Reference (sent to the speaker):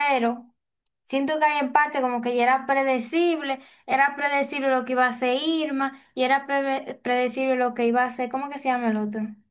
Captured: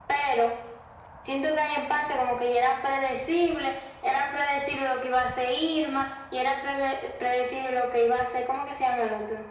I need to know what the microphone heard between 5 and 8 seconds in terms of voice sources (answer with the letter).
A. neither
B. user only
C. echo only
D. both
C